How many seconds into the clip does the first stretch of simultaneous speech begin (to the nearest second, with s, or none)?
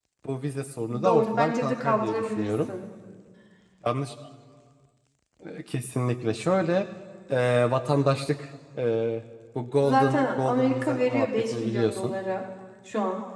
1 s